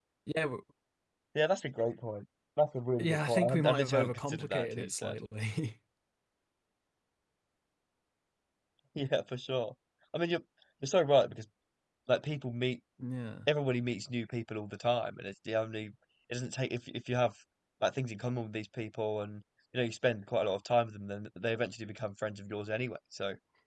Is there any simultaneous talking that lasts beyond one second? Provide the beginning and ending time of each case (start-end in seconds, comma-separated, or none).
3.0-5.2